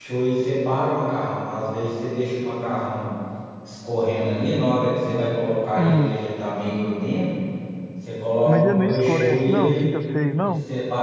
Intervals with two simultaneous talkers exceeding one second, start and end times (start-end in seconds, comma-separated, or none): 8.5-9.8